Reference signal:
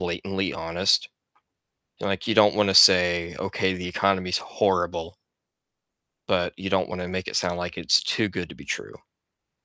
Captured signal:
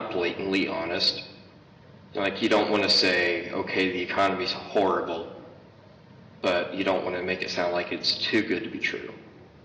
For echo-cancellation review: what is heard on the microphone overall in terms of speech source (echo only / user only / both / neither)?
echo only